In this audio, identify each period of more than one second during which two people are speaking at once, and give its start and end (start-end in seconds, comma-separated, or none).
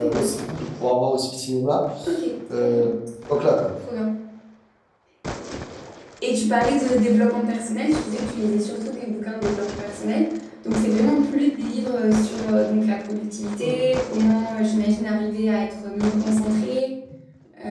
none